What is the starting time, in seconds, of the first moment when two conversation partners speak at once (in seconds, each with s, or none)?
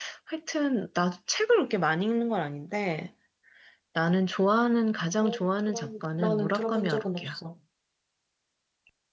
5.2 s